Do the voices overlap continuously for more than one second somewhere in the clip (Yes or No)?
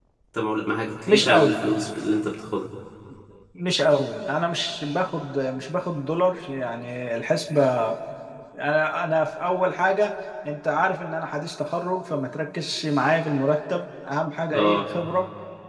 No